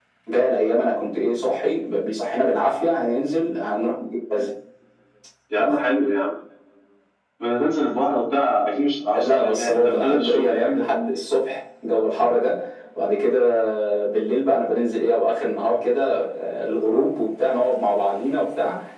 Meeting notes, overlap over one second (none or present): present